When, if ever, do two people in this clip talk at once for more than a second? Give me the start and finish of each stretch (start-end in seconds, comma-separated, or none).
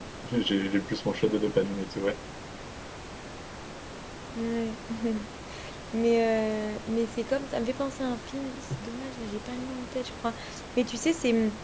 none